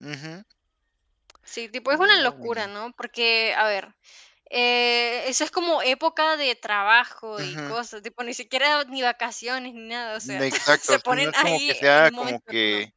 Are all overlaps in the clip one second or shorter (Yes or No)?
No